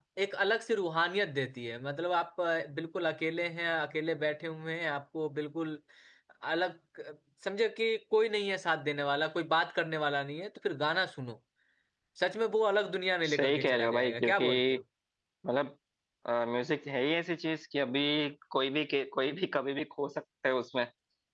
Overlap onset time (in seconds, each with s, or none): 13.2 s